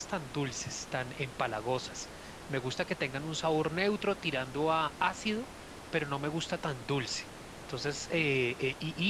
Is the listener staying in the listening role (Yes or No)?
Yes